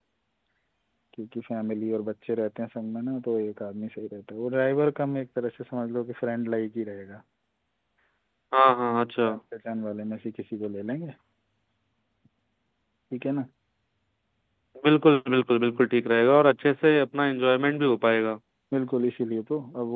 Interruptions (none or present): none